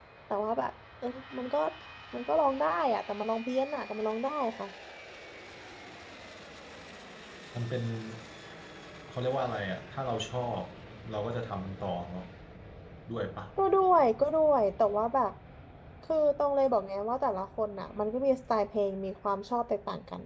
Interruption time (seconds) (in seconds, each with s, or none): none